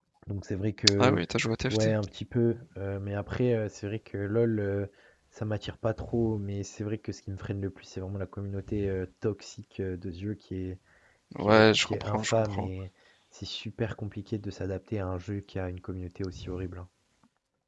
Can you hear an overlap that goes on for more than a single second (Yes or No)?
Yes